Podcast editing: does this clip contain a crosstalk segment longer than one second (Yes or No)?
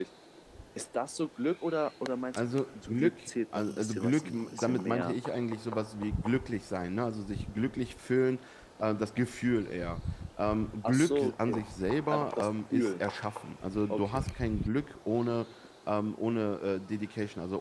Yes